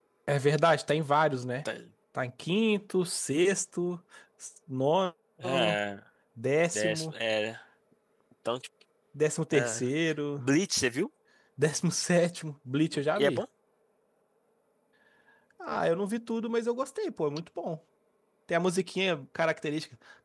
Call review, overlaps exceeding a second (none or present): none